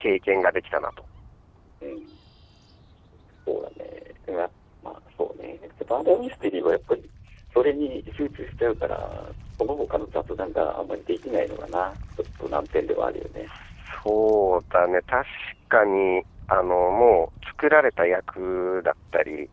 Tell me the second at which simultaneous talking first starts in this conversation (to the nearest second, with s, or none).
none